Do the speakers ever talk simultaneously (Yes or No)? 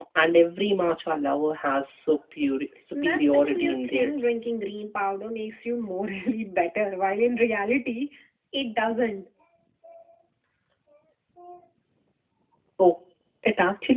Yes